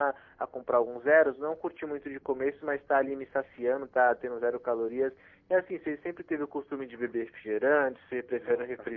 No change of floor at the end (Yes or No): No